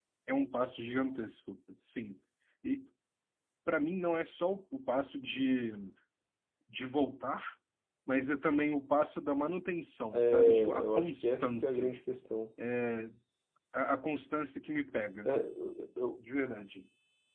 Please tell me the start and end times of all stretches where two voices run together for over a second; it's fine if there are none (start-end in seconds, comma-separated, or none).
10.1-12.0